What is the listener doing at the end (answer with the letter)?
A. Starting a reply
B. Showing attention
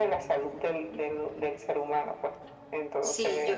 A